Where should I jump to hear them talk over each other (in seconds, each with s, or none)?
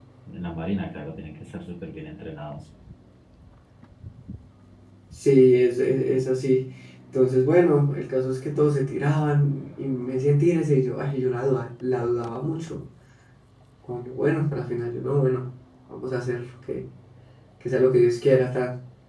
none